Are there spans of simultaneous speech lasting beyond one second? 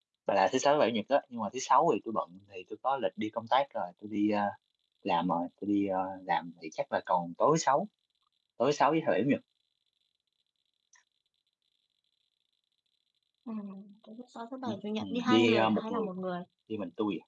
Yes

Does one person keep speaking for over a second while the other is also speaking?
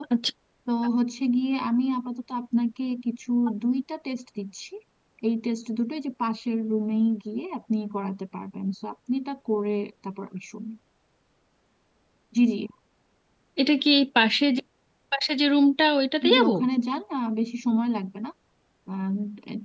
No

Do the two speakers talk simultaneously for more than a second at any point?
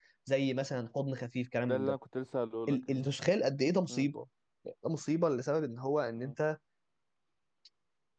No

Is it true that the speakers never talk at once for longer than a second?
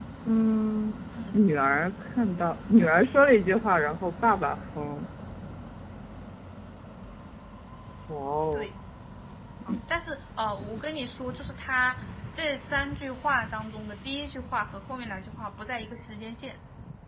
Yes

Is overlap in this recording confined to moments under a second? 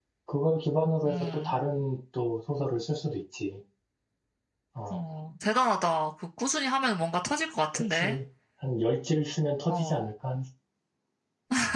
Yes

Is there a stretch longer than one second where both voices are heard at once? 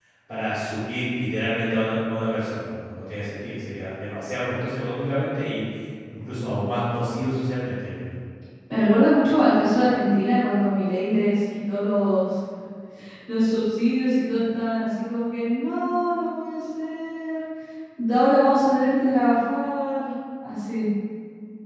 No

